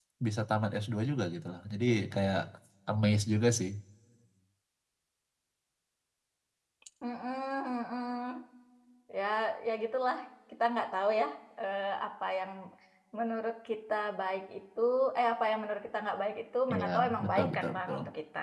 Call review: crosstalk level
present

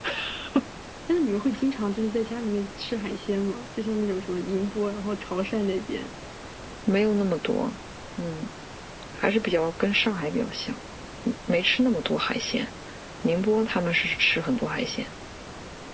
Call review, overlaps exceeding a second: none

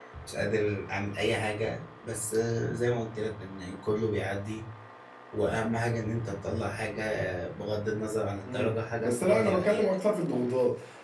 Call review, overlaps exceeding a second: present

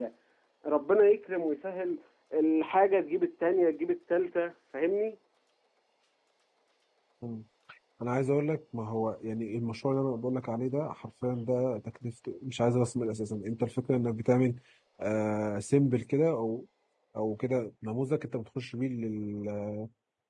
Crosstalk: none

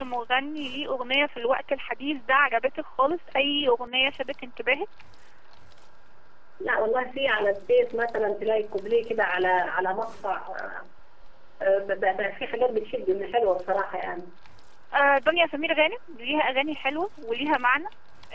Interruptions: none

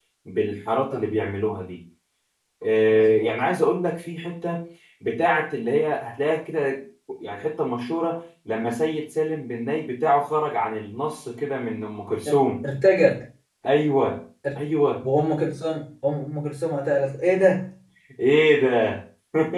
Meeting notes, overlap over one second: none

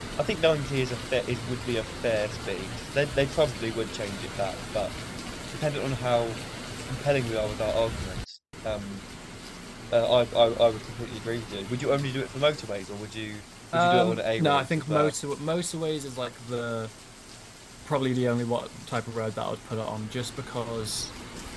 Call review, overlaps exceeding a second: present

